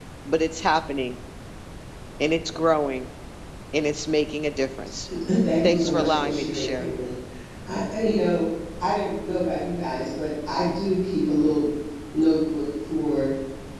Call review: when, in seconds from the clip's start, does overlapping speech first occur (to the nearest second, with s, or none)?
6 s